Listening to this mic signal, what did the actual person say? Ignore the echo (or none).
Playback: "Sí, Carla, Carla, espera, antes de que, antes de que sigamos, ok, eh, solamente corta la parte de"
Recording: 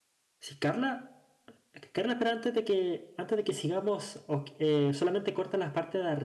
none